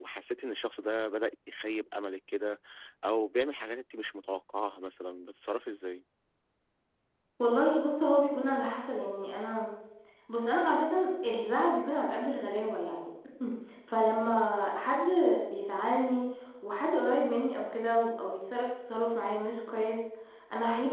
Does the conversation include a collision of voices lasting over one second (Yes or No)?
No